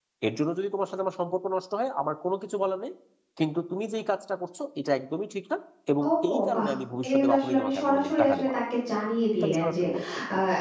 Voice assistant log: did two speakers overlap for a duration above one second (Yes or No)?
Yes